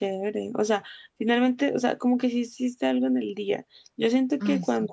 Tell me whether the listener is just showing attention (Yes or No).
Yes